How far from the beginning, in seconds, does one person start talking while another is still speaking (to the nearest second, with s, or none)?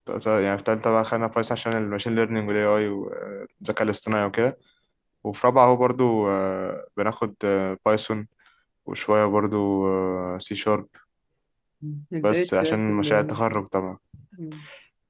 12 s